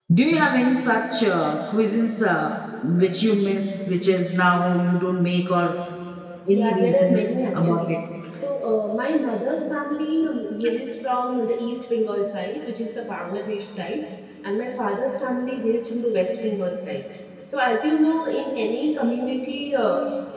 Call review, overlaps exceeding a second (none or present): present